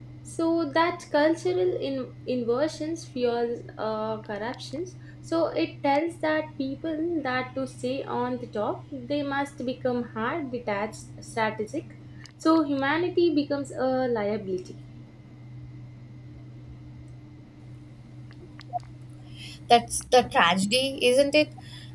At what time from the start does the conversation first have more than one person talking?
none

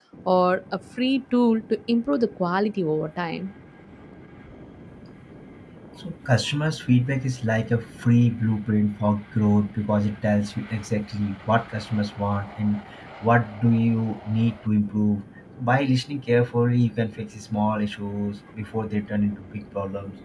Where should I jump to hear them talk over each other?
none

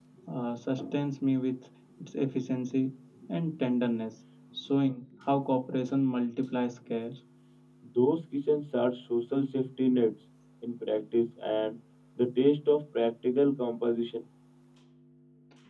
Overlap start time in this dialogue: none

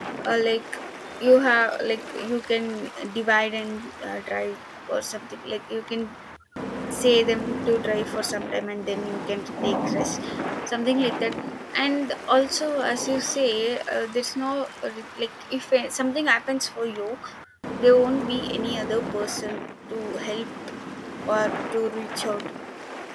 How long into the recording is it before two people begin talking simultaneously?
none

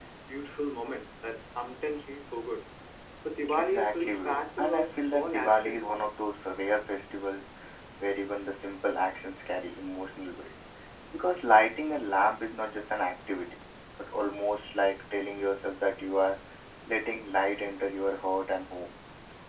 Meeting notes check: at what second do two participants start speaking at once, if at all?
4 s

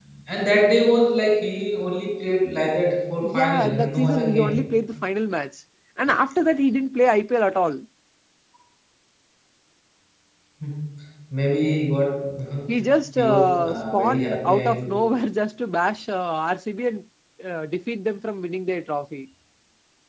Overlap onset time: 3 s

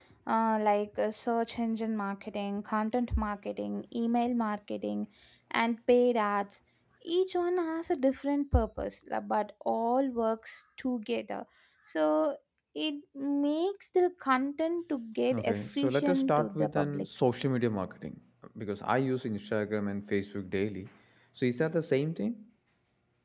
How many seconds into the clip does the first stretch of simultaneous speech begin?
15 s

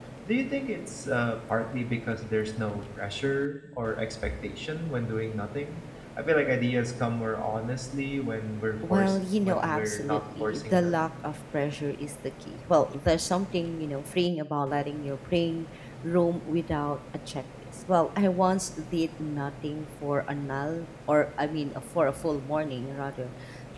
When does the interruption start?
9 s

